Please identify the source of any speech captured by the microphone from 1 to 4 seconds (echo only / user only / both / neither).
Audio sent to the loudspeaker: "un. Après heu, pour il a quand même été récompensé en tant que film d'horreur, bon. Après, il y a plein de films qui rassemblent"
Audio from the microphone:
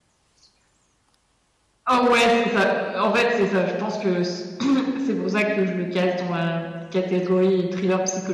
user only